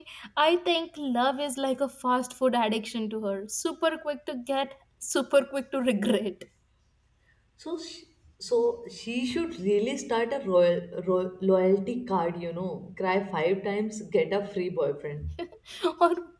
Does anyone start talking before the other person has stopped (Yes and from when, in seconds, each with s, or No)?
No